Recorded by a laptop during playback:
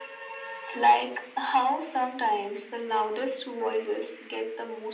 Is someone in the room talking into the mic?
No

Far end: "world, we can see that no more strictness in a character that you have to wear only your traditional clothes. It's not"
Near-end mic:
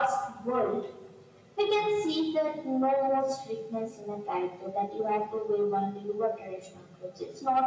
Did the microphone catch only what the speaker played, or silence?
Yes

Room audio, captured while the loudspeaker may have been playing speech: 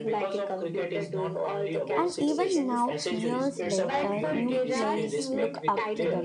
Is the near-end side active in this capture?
Yes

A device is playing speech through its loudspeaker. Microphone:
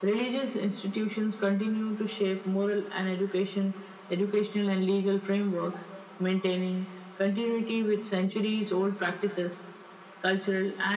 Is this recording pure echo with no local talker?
Yes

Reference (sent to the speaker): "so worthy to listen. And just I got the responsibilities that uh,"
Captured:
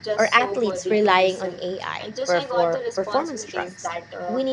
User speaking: Yes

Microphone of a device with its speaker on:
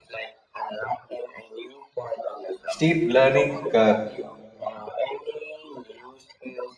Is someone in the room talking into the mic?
Yes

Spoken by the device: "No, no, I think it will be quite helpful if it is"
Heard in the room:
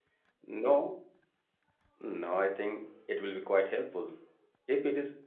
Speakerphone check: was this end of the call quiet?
Yes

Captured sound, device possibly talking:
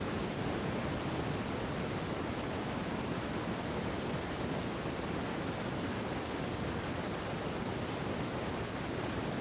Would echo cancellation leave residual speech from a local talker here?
No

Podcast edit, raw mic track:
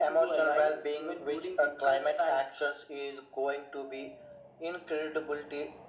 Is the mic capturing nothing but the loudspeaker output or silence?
Yes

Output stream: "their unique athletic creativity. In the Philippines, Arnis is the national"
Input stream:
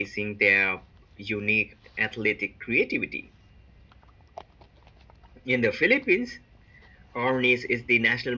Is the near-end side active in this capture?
No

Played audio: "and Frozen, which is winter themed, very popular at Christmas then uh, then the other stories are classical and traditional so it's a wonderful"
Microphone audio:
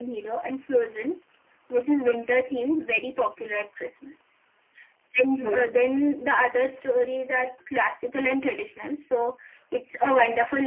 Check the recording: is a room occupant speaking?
No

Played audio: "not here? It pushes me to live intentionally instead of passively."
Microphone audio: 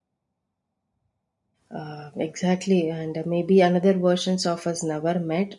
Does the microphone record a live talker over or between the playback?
Yes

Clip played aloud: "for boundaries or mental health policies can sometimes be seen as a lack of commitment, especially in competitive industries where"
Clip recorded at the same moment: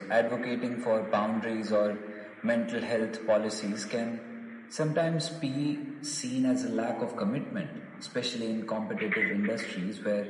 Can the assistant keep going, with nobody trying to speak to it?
Yes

